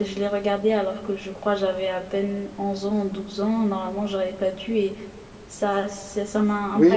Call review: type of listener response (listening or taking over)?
taking over